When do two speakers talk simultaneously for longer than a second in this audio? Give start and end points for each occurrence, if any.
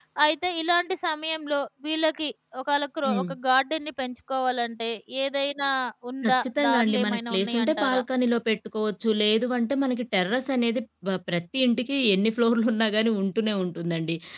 6.3-8.0

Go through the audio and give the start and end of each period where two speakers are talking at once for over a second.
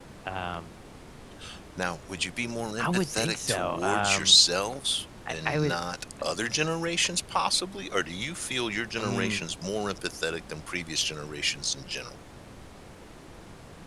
2.8-4.4

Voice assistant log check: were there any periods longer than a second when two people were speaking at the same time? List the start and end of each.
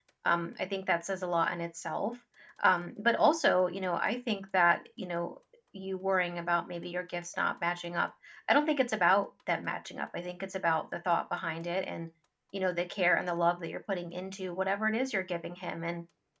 none

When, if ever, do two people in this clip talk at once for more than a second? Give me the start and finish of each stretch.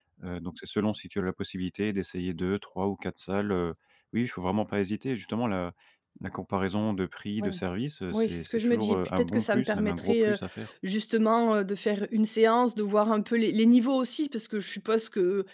8.1-10.4

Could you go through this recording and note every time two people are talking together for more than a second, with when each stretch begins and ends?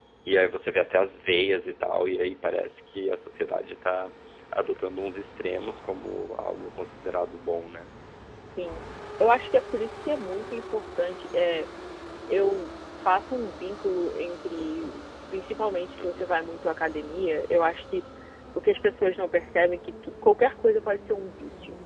none

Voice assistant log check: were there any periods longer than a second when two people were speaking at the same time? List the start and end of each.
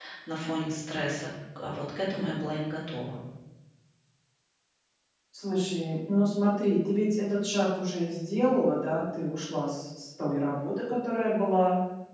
none

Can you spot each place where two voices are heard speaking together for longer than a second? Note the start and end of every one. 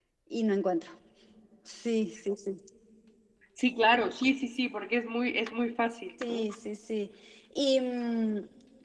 none

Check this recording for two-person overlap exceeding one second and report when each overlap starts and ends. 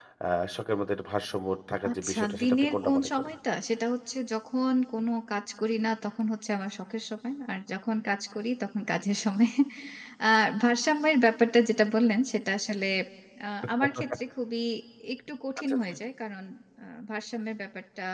1.9-3.3

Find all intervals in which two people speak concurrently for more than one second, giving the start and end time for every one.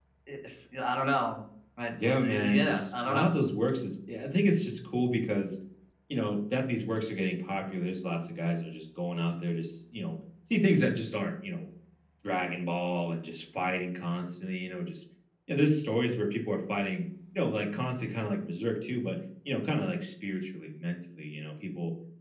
2.0-3.3

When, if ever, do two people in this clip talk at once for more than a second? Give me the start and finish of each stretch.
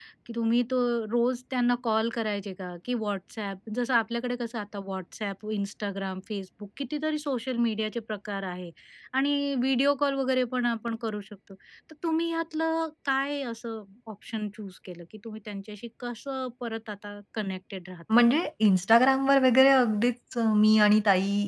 none

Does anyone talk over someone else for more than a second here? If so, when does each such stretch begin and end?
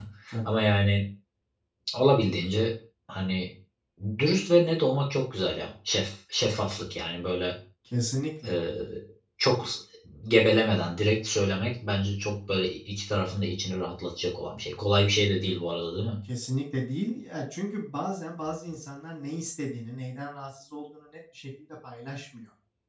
none

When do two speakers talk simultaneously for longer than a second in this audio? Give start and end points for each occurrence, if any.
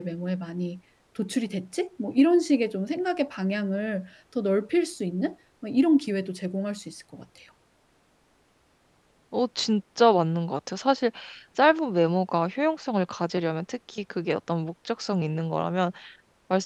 none

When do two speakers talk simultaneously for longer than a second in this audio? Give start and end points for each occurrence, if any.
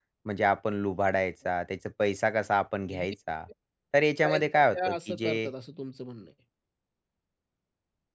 4.3-5.5

